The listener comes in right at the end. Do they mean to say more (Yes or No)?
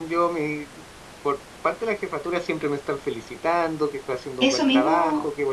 Yes